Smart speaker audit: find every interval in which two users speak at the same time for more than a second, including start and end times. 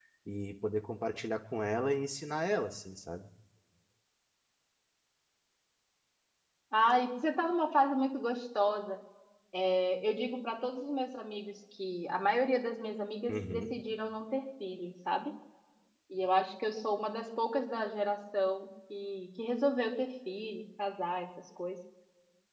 none

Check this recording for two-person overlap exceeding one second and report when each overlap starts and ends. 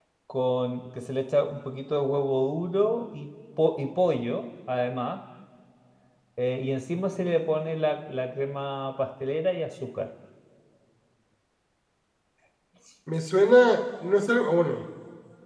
none

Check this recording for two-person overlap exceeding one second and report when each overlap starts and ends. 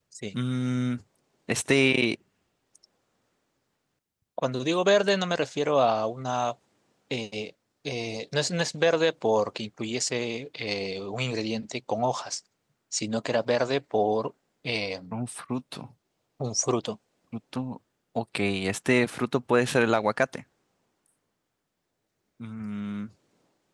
none

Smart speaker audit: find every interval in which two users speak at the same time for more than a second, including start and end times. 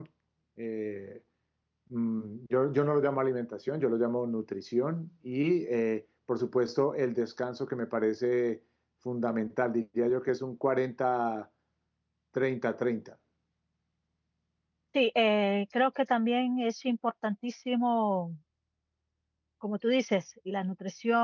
none

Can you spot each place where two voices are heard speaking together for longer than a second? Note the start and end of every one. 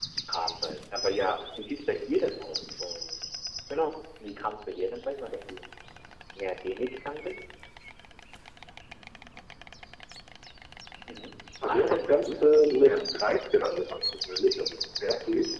11.7-12.9

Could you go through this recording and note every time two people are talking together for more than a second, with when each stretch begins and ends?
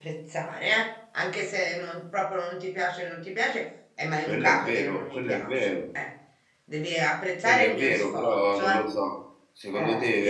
4.3-5.7, 7.4-8.9

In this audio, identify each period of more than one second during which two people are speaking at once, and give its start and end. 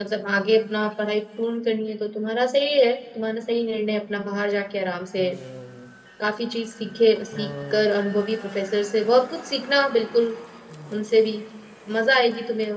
none

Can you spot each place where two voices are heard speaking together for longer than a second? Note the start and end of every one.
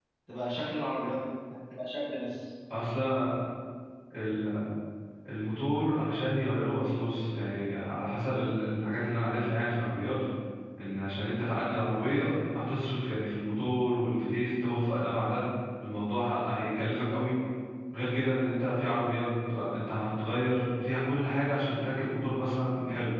none

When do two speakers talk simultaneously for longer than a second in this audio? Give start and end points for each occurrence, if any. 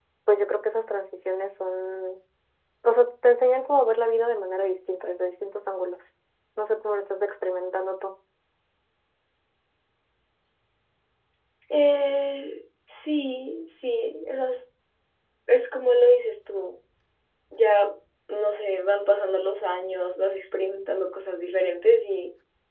none

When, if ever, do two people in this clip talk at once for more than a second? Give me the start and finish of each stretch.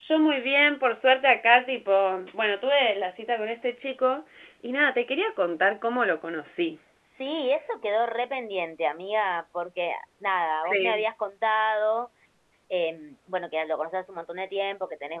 none

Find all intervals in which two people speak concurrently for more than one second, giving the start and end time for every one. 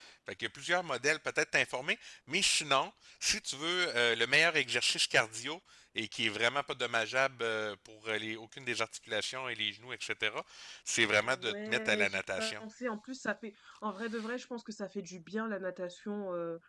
11.2-12.6

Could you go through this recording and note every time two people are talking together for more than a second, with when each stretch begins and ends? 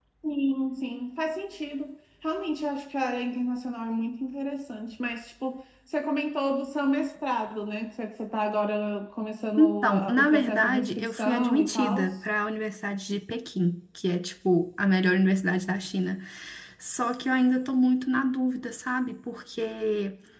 9.6-12.1

